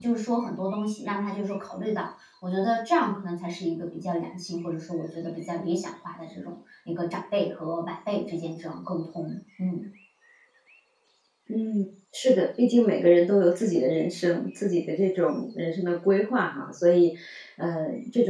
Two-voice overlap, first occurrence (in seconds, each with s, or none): none